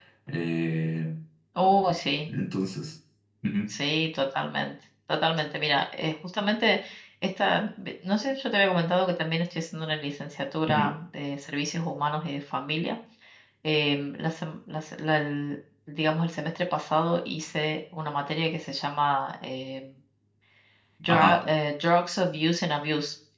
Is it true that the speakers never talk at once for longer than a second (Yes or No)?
Yes